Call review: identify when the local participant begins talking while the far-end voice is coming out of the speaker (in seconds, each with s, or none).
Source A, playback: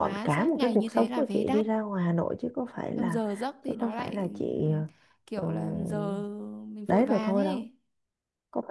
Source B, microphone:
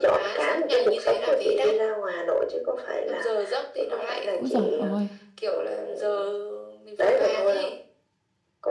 4.4 s